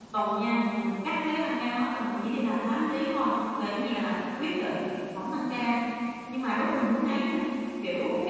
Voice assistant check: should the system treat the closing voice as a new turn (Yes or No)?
No